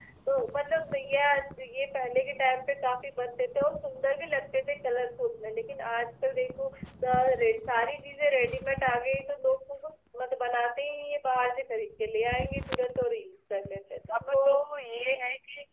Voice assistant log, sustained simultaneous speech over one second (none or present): none